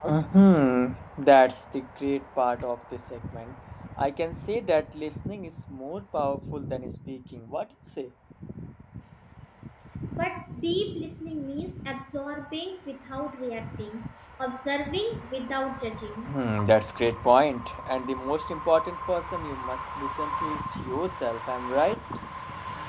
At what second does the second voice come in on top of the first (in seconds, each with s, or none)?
none